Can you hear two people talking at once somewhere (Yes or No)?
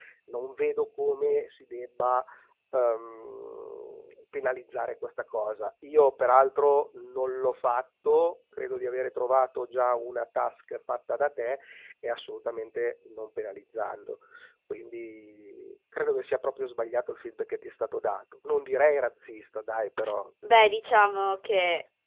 No